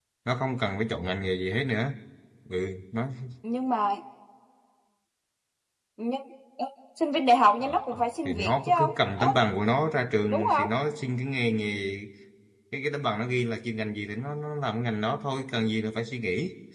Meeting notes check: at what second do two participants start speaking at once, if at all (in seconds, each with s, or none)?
7.6 s